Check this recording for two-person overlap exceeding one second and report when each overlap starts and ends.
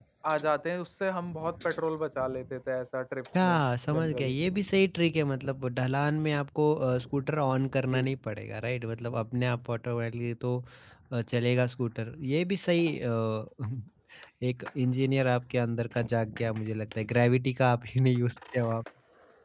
none

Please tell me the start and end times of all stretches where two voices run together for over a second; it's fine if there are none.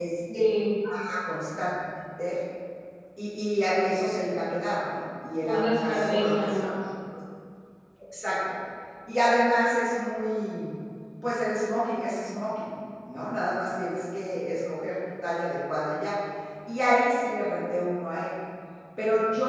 5.4-6.7

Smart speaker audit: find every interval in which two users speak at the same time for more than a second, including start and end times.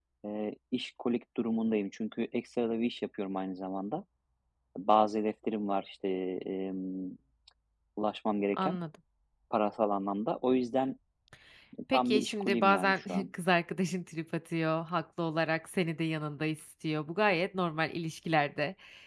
11.9-13.3

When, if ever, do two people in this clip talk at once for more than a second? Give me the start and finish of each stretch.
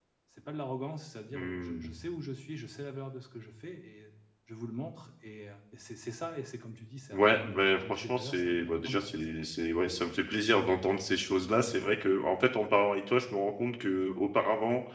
7.1-9.2

